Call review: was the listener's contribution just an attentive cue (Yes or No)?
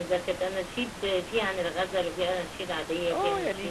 No